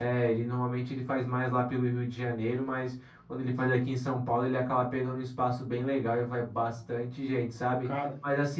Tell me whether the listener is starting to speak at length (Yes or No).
No